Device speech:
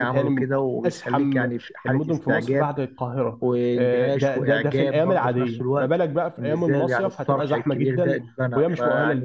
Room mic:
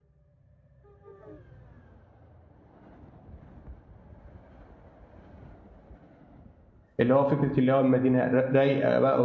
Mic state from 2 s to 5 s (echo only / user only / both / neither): neither